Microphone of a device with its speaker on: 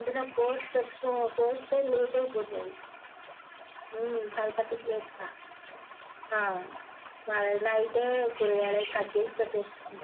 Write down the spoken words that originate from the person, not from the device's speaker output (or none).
none